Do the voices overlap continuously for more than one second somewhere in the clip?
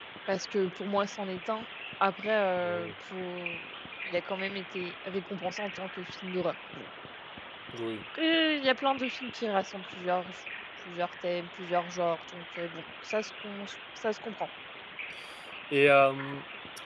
No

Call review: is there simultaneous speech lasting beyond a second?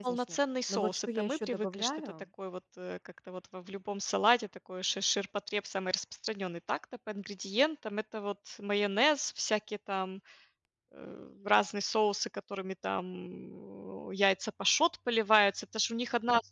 Yes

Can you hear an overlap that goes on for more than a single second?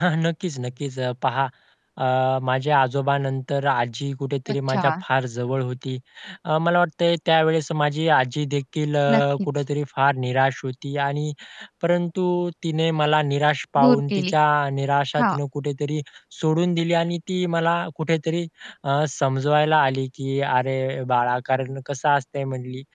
No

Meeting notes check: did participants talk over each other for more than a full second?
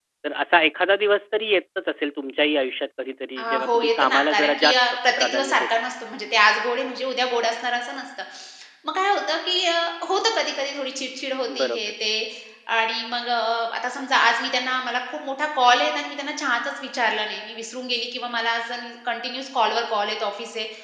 Yes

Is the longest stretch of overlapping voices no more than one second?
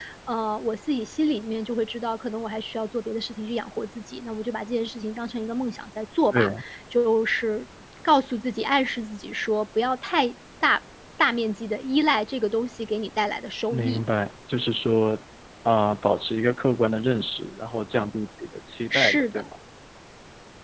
Yes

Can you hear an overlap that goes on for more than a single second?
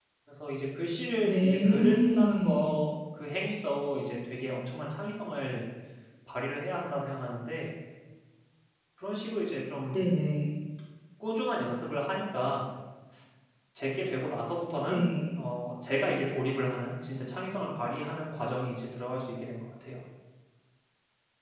Yes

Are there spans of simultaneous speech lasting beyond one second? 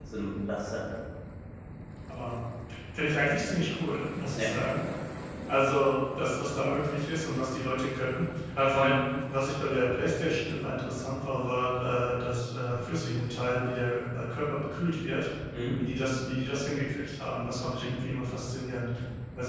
No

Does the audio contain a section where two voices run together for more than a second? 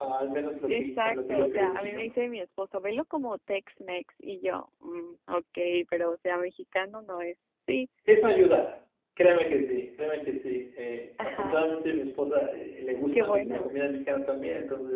Yes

